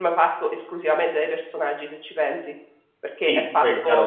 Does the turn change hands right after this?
Yes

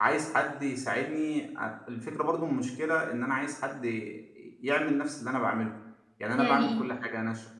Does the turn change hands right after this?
No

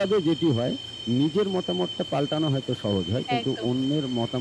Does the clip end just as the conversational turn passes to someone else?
No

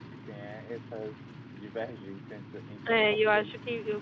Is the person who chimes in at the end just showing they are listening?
No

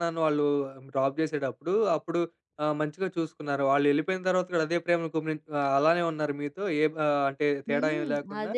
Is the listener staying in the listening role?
No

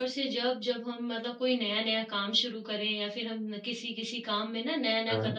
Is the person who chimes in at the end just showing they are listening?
Yes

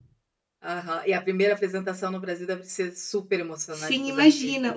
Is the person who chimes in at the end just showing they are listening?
No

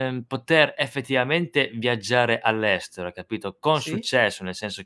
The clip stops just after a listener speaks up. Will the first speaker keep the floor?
Yes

